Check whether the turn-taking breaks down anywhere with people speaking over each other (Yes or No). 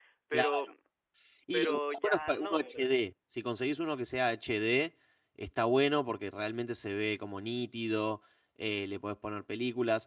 Yes